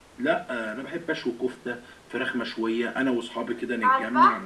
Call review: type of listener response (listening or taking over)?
listening